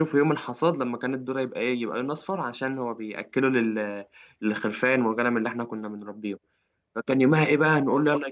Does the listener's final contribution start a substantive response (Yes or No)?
No